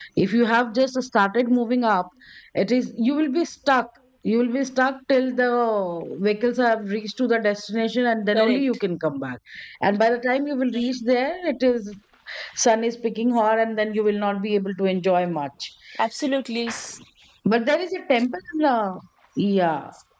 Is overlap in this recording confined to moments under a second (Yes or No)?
Yes